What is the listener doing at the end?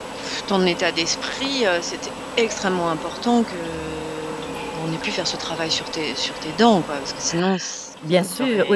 taking over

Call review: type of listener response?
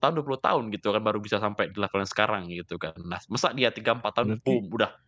listening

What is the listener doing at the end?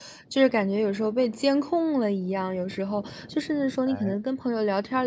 listening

